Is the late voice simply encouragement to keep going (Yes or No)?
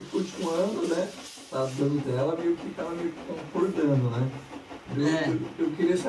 Yes